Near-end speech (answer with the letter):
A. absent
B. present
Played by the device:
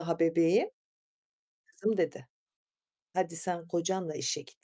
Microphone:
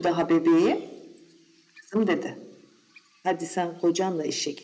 A